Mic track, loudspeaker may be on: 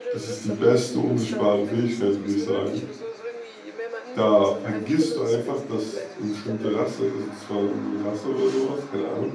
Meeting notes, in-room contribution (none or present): present